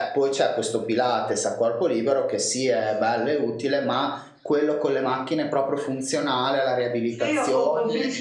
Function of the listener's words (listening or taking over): taking over